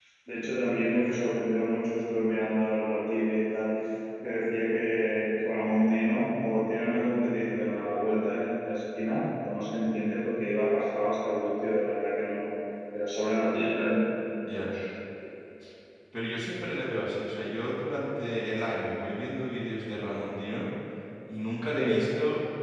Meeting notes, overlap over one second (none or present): none